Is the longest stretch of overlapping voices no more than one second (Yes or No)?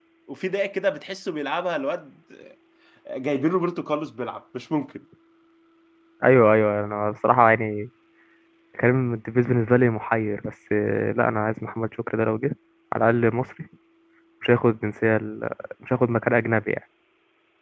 Yes